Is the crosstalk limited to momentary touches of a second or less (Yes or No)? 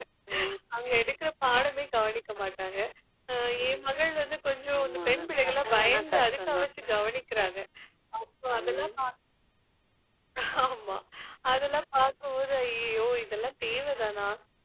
No